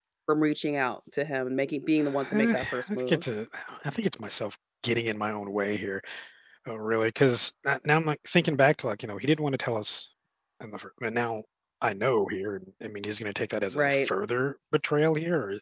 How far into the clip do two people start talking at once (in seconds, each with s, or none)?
2.0 s